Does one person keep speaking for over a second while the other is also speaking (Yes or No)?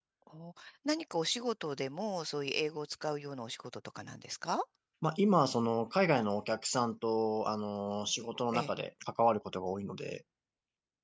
No